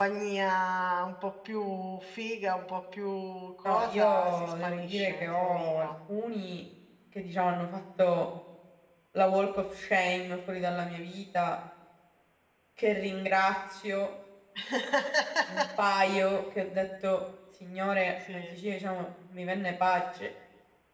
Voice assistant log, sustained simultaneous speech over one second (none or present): present